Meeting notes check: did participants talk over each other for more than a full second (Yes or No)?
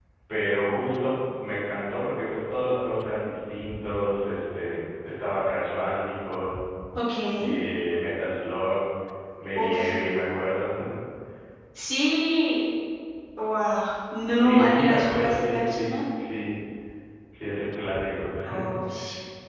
Yes